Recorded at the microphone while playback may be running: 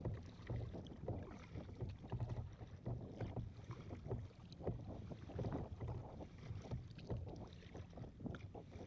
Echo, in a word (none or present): none